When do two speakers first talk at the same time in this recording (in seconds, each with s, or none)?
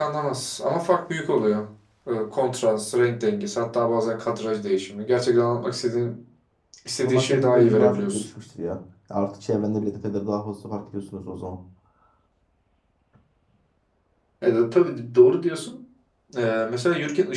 7.0 s